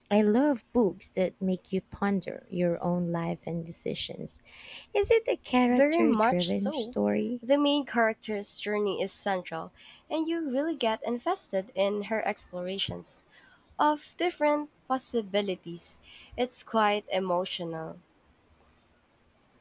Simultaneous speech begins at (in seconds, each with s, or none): 5.7 s